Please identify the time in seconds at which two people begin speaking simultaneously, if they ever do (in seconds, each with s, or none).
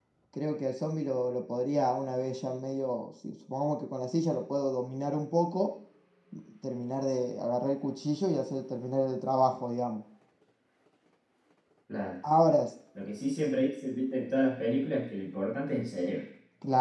none